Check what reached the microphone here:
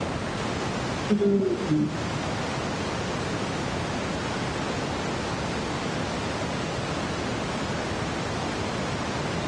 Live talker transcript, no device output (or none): Uhum.